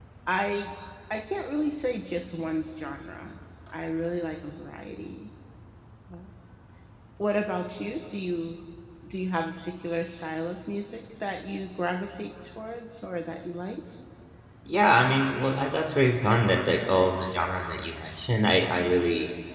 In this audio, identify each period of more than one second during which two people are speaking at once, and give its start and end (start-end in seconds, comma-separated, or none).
none